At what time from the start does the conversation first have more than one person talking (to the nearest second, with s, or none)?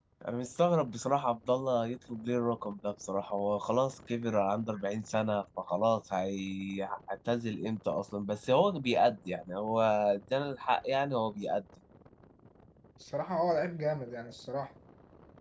none